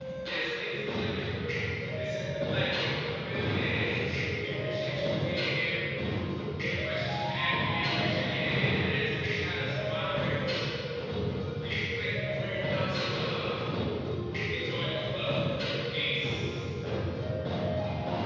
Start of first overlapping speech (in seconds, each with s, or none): none